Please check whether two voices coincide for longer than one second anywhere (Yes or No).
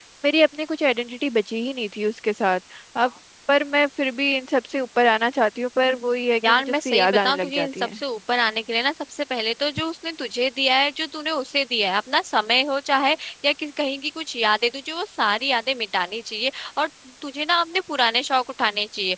Yes